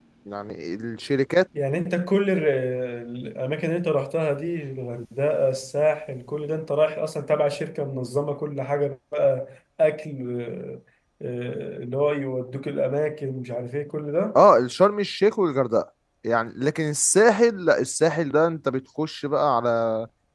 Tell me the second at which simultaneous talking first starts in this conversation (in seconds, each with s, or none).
none